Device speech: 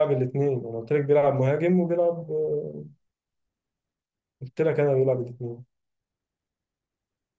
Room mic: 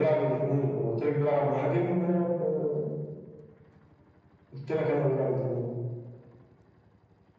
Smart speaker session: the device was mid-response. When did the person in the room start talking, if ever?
none

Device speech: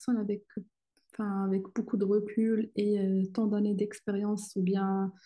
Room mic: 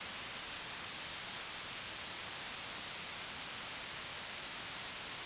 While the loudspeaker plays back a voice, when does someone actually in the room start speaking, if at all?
none

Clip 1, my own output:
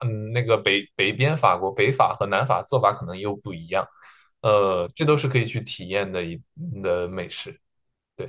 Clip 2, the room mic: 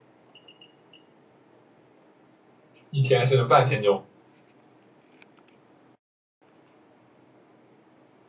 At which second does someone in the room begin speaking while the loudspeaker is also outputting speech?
2.9 s

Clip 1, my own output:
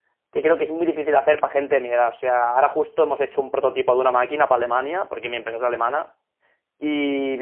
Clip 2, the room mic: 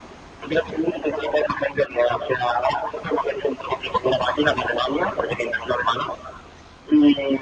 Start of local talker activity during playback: none

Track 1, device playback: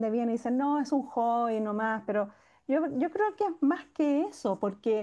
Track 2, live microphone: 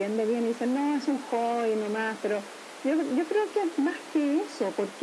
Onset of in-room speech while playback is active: none

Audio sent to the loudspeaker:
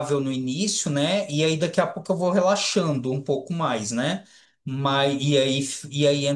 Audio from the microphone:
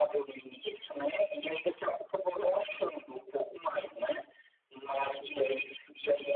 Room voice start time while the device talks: none

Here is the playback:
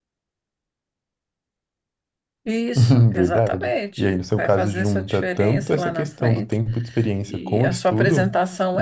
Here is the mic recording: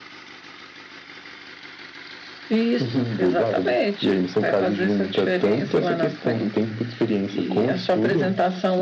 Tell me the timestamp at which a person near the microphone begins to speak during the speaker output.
none

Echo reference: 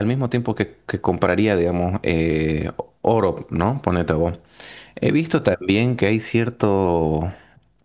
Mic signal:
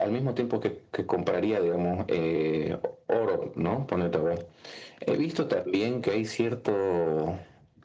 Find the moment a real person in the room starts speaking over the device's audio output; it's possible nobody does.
none

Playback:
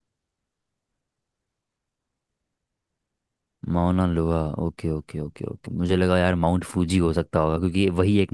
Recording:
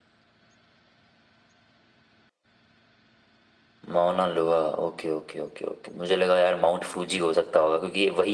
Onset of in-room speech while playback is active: none

